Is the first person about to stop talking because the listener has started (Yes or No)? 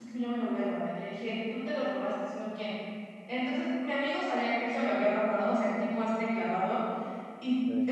No